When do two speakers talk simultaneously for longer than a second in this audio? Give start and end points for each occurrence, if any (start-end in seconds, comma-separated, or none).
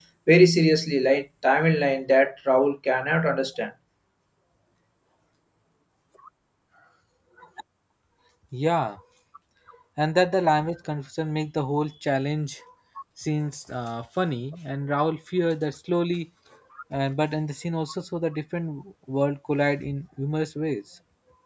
none